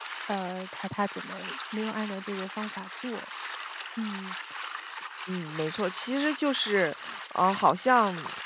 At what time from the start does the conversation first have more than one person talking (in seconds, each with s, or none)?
none